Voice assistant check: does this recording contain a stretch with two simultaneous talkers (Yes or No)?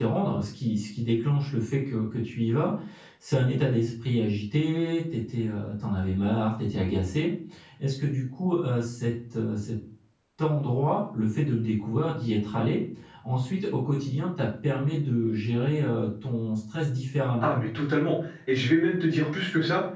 No